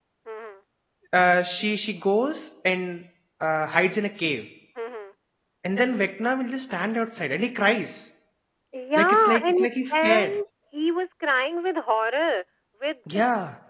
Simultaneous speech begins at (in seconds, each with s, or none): 9.0 s